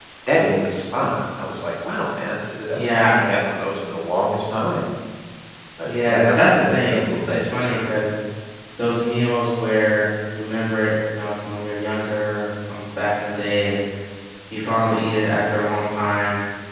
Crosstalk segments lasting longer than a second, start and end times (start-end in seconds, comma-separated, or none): 5.8-7.8